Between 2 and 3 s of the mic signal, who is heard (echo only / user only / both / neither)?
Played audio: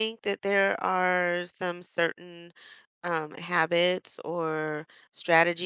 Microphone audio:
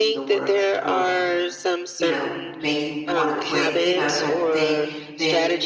both